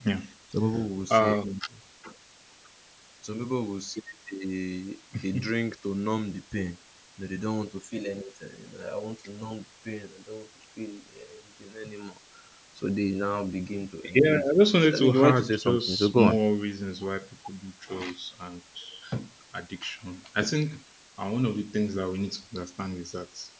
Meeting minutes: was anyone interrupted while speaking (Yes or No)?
Yes